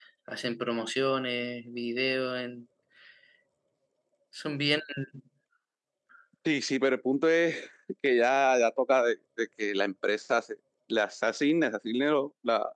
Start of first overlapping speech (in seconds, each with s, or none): none